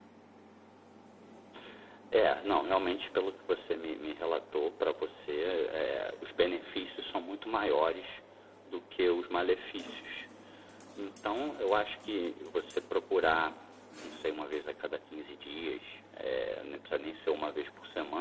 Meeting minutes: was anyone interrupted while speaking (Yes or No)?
No